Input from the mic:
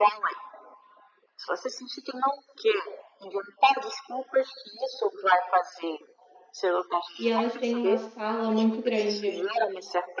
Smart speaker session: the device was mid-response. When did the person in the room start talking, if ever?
7.2 s

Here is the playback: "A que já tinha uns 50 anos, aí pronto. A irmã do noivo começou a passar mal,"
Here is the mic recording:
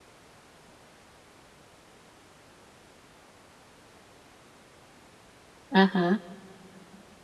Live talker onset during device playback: 5.7 s

